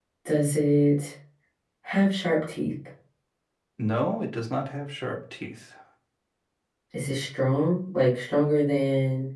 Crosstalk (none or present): none